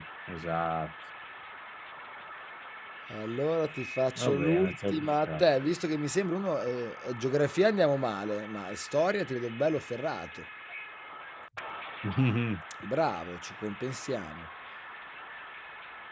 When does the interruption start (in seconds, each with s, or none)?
4.2 s